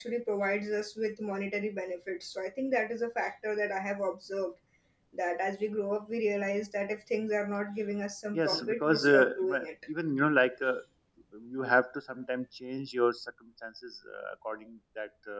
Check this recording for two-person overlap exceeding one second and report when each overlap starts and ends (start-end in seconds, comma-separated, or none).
8.3-9.7